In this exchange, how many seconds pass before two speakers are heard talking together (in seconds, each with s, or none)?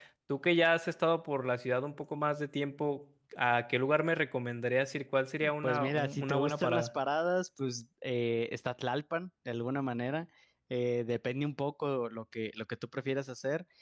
5.4 s